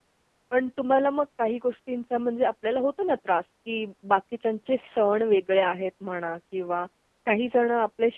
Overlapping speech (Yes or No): No